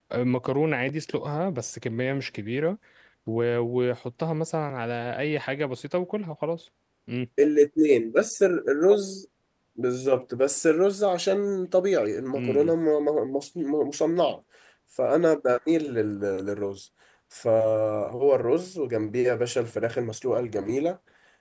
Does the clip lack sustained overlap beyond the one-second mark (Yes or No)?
Yes